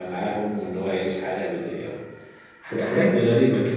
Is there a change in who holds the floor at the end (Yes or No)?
No